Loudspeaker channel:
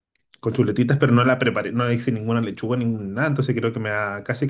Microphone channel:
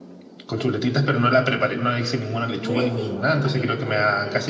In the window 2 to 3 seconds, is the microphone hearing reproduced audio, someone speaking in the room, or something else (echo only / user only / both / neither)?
both